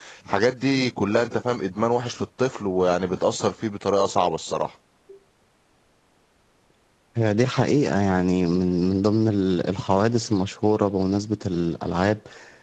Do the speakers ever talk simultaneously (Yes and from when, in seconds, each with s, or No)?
No